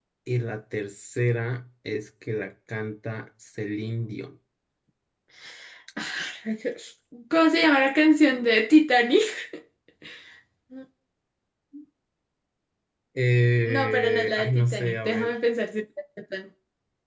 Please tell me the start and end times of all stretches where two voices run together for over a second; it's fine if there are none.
13.7-15.3

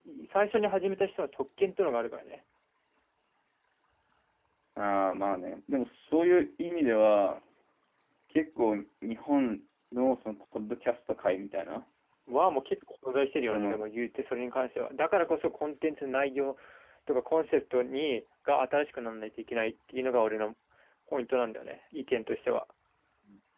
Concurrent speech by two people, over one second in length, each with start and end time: none

